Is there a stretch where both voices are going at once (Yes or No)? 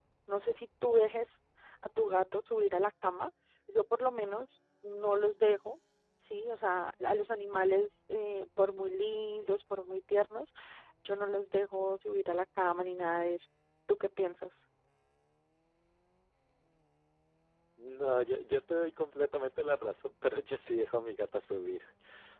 No